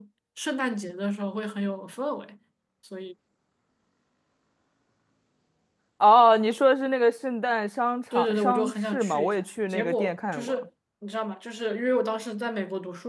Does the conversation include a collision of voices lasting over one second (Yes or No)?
Yes